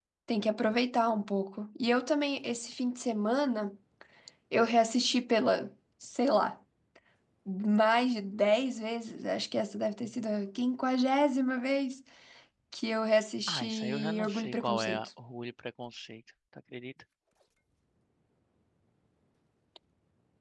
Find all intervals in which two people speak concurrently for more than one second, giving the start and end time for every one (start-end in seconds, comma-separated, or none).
13.5-15.1